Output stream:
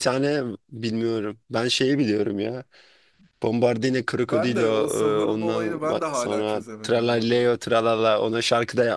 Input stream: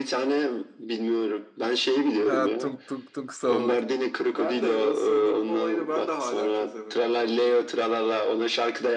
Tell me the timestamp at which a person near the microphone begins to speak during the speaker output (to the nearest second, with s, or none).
2 s